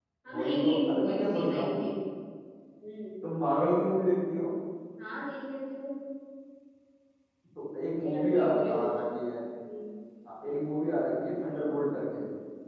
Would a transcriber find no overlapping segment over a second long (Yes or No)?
No